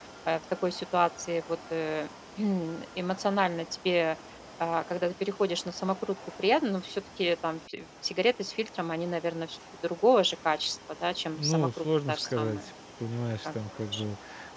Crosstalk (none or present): present